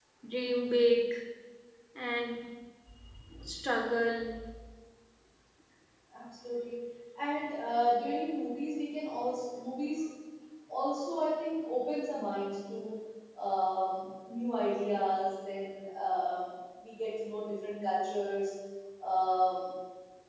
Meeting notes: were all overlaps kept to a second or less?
Yes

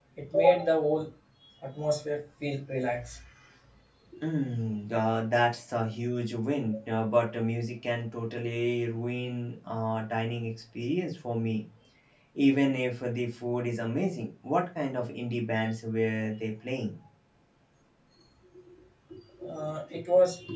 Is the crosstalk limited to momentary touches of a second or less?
Yes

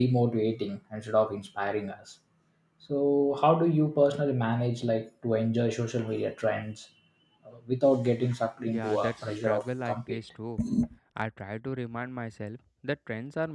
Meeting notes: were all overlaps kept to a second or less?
No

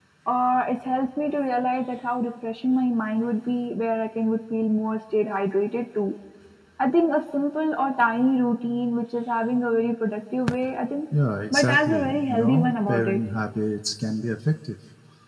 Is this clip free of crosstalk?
No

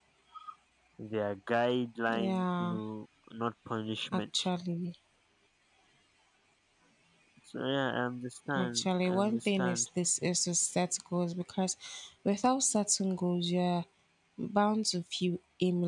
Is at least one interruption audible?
Yes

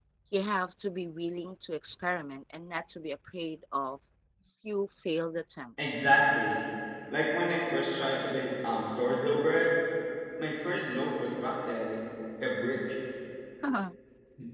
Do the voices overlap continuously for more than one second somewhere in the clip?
No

